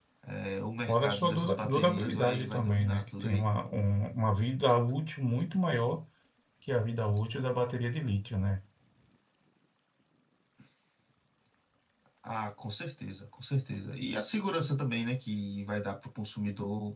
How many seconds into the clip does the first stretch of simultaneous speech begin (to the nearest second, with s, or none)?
1 s